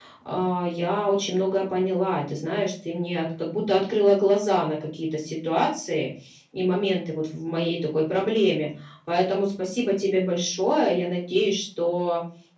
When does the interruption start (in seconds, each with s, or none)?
none